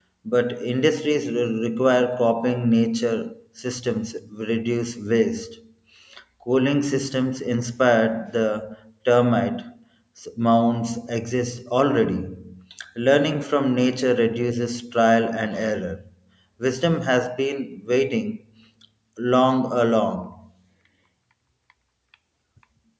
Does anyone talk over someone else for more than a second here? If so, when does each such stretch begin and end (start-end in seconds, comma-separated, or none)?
none